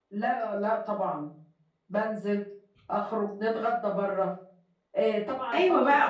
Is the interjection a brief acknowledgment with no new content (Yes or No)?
No